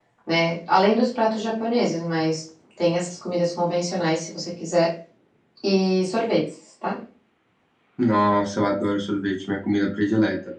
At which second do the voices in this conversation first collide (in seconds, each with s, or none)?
none